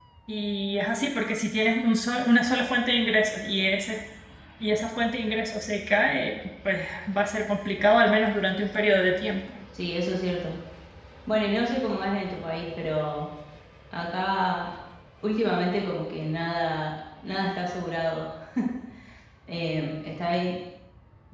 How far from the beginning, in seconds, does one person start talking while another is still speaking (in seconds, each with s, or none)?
none